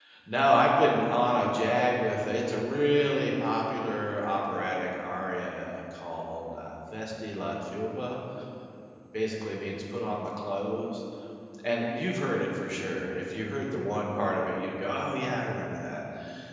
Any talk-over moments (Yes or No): No